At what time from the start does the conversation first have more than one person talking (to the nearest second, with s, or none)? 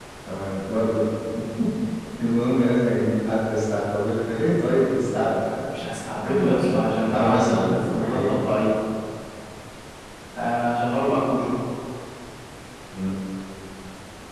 6 s